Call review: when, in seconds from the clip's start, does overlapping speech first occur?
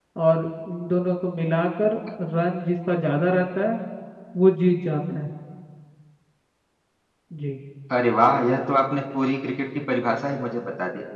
none

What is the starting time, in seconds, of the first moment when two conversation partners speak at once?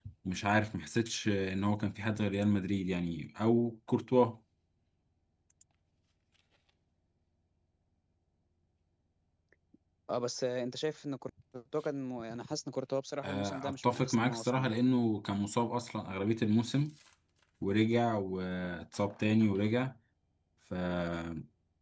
13.2 s

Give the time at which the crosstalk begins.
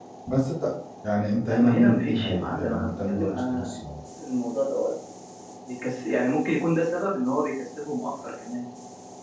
1.4 s

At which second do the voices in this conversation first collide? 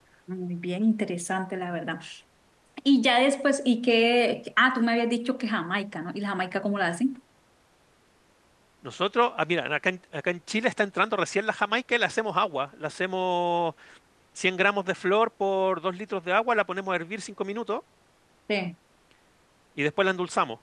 none

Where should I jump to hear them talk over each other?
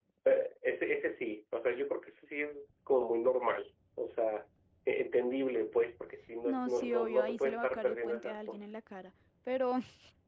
6.5 s

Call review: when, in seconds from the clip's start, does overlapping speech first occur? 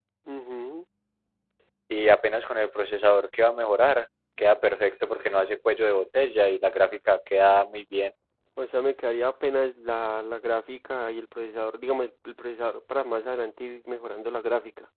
none

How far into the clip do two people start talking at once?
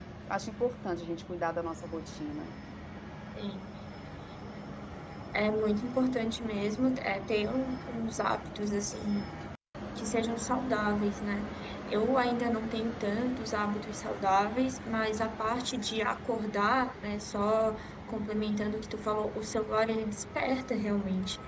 none

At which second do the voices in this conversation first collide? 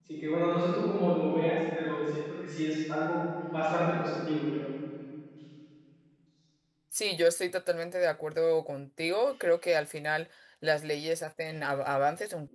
none

